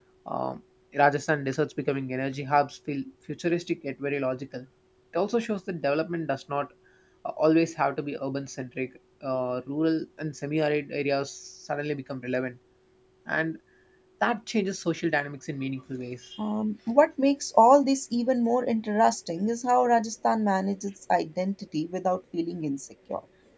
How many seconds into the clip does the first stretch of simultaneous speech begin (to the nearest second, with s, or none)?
none